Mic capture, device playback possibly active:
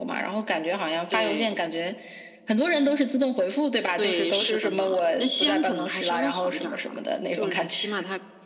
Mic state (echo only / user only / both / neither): echo only